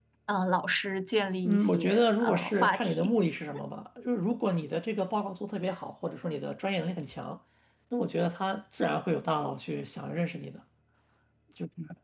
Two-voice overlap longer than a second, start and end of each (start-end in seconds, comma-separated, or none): 1.4-3.1